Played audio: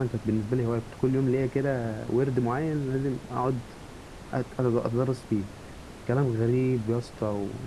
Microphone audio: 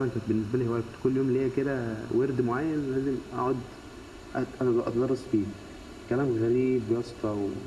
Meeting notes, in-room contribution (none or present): none